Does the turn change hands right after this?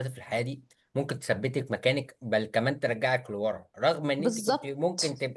No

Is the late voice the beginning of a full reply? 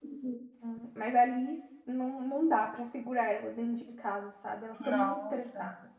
Yes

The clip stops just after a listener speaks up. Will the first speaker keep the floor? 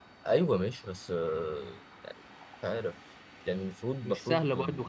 No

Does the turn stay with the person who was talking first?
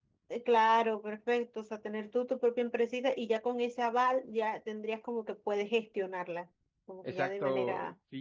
No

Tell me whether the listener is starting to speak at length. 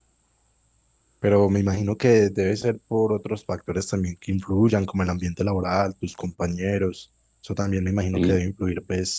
No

